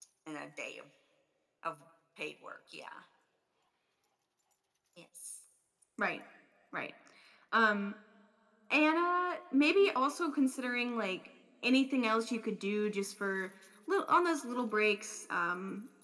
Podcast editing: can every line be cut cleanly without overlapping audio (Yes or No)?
Yes